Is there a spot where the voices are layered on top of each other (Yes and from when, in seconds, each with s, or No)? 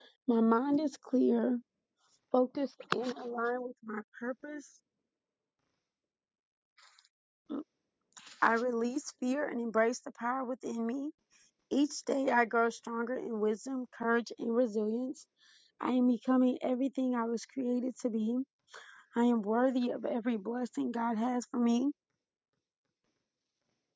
No